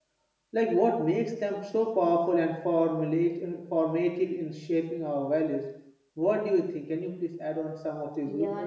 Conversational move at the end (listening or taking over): taking over